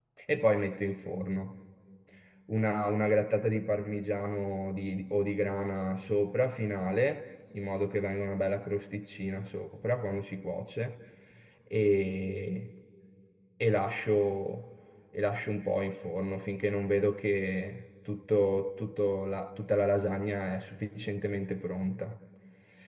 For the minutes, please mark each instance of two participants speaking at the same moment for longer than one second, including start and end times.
none

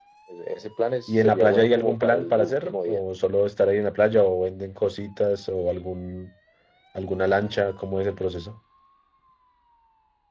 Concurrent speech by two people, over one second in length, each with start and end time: 1.1-3.0

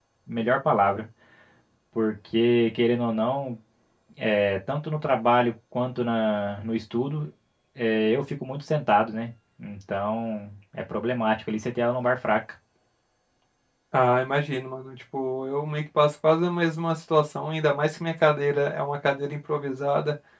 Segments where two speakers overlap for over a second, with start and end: none

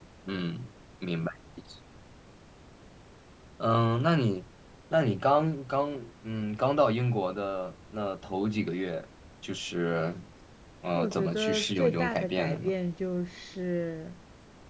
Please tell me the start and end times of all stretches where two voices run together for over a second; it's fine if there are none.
10.9-12.7

